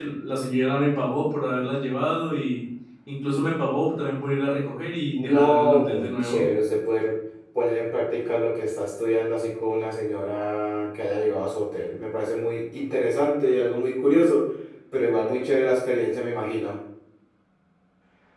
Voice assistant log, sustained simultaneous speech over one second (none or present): present